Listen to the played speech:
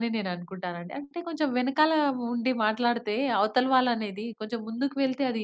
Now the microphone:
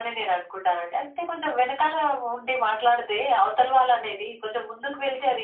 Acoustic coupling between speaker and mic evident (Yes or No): Yes